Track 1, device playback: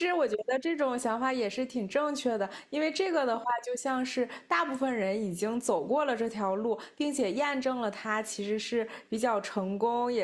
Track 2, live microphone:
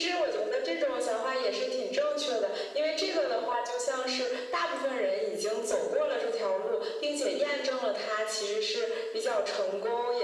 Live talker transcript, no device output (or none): none